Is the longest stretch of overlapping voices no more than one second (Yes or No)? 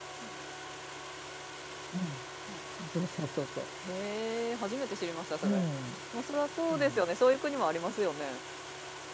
Yes